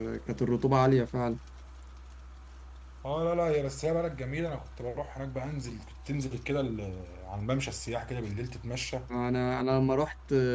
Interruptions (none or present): none